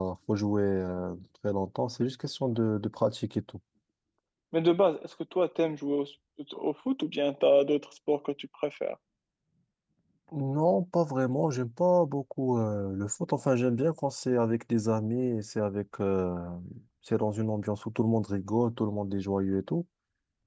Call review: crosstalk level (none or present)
none